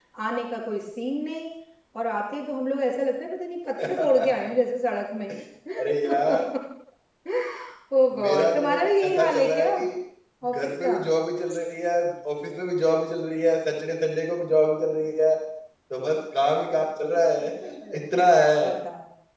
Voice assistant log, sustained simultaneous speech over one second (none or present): present